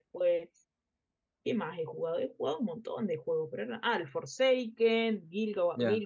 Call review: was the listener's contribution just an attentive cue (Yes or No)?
Yes